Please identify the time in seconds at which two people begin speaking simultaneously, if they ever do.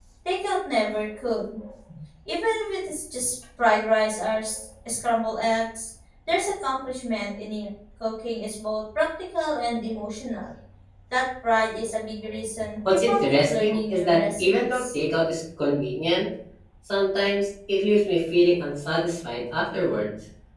13.1 s

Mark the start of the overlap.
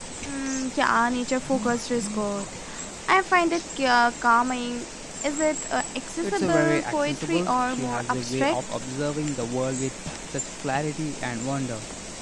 6.2 s

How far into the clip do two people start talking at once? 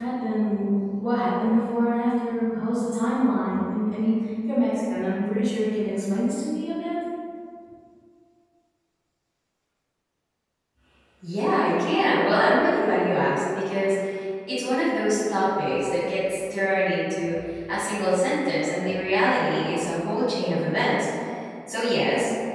none

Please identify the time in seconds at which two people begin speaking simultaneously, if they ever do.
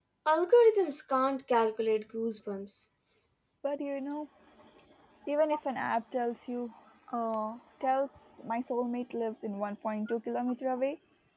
none

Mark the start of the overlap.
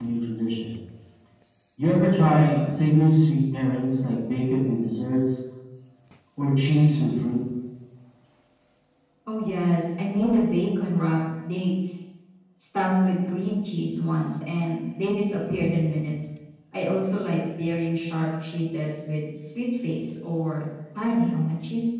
none

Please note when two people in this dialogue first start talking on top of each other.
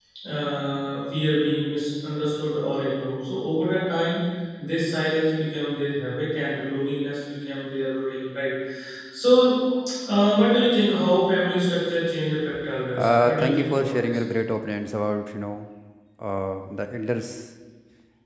13.0 s

